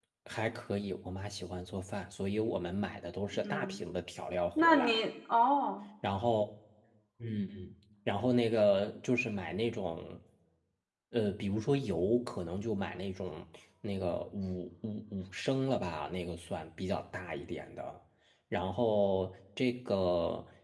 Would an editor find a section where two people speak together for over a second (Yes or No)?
No